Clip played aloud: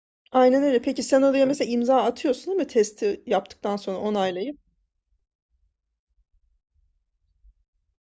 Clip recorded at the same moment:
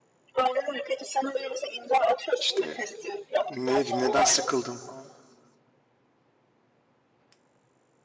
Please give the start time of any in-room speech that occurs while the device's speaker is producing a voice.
2.4 s

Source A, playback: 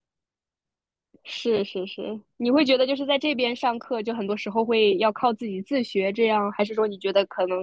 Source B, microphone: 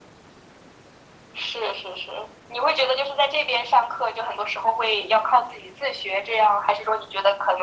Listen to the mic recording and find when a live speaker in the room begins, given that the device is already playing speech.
none

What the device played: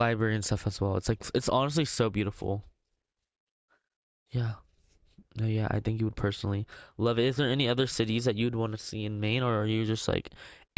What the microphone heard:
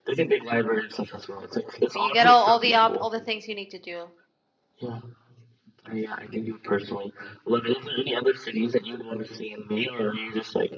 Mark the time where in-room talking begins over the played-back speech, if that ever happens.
1.9 s

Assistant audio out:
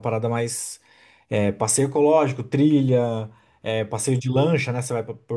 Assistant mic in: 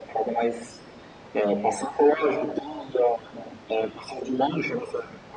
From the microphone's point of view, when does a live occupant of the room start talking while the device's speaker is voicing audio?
none

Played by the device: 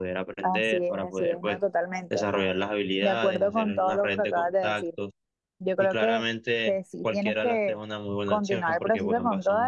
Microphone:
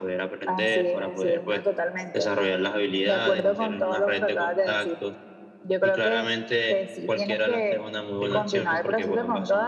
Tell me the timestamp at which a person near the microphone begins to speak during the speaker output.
8.2 s

